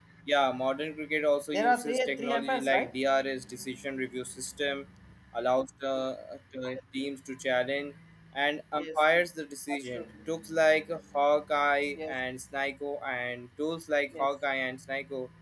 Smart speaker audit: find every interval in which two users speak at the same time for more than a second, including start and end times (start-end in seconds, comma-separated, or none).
1.5-2.9